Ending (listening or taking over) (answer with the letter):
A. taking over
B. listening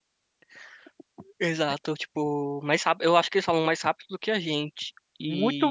A